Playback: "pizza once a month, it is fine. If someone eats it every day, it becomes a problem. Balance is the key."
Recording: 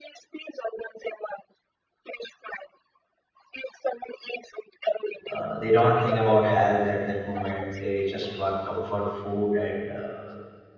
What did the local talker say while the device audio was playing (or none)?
uh, they don't think about health at that moment they just want comfort food and uh,